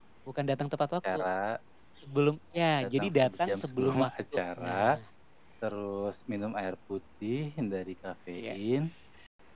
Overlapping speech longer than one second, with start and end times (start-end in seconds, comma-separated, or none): 2.8-5.0